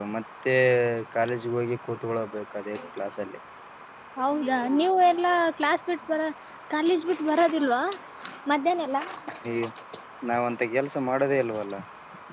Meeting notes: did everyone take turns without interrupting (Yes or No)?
Yes